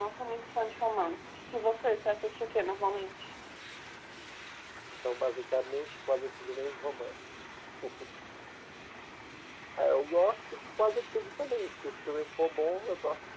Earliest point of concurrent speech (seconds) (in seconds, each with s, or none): none